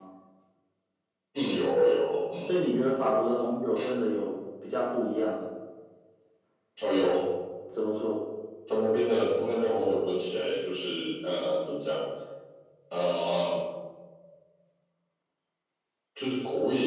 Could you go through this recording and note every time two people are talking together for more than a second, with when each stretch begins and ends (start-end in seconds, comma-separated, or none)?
none